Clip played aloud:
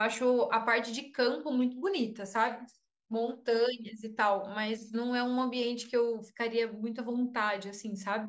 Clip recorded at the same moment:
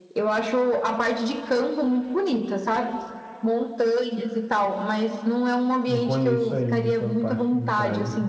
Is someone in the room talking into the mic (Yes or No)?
Yes